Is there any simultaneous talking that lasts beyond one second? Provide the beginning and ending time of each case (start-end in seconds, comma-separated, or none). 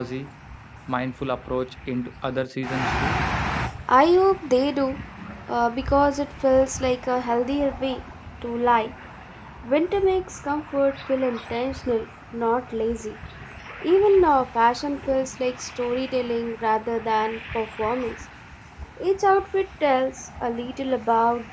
none